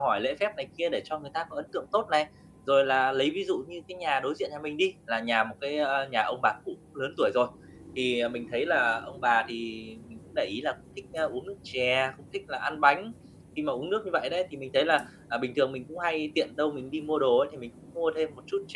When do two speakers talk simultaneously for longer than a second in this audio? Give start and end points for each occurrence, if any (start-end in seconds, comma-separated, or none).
none